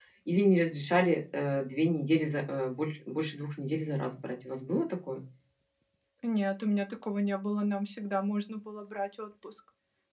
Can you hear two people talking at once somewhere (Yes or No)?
No